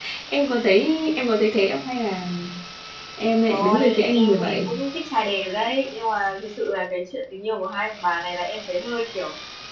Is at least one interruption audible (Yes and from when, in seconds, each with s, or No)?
Yes, from 3.5 s